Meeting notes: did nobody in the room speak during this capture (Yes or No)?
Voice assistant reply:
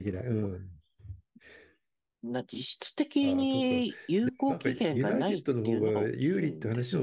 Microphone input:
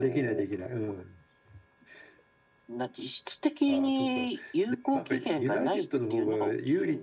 Yes